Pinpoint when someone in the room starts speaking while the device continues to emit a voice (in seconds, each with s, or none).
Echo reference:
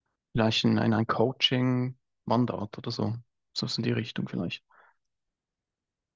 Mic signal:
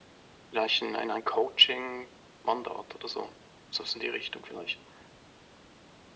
none